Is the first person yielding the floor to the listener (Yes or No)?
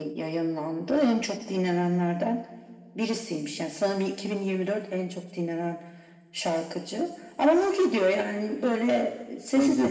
No